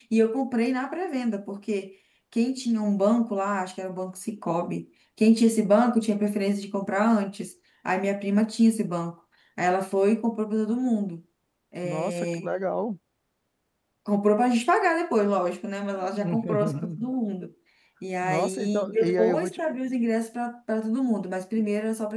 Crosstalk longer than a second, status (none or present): present